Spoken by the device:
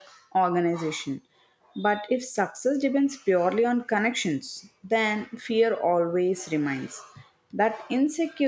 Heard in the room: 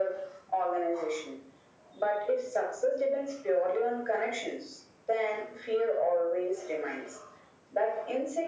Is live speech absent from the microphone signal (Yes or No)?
Yes